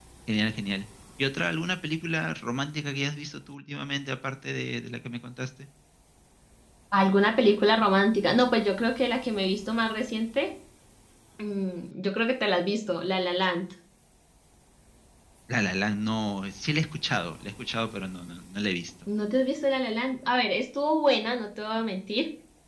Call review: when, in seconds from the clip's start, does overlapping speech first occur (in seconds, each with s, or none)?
none